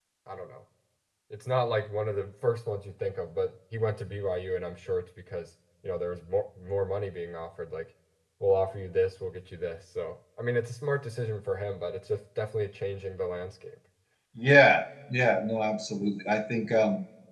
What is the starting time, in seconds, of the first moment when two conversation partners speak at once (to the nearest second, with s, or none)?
none